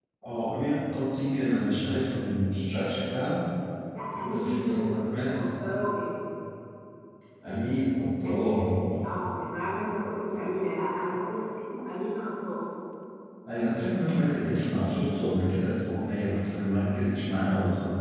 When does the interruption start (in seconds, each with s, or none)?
4.2 s